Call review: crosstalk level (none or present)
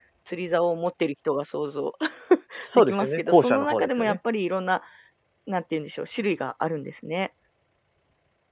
present